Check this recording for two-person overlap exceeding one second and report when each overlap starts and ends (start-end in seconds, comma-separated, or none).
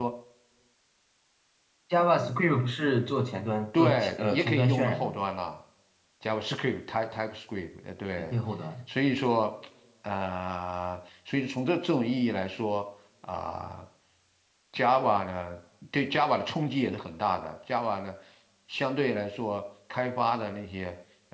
3.8-5.1